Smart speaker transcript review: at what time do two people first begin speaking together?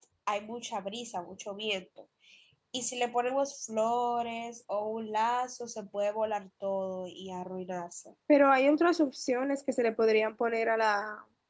none

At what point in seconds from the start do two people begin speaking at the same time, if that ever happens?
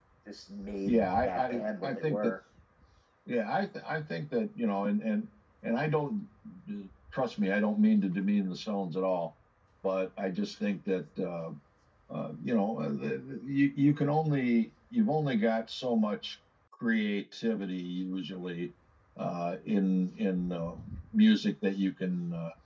0.9 s

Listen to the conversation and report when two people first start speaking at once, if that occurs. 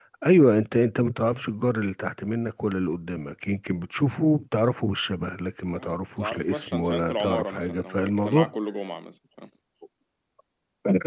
5.8 s

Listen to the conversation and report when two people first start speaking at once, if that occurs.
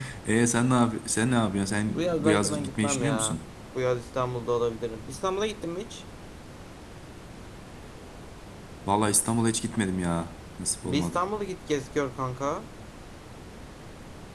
1.9 s

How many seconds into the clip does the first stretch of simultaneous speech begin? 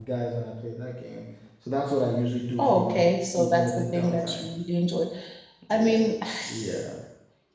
2.6 s

